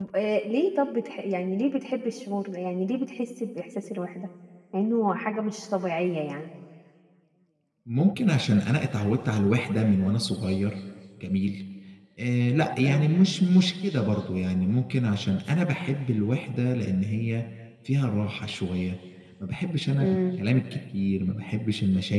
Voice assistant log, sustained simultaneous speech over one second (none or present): none